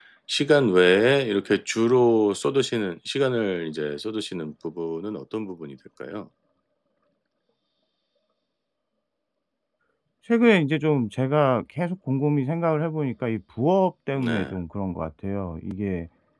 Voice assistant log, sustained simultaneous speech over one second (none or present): none